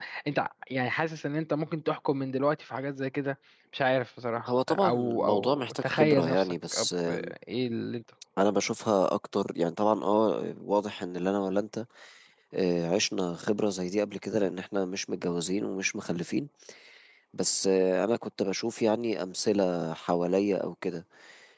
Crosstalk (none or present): present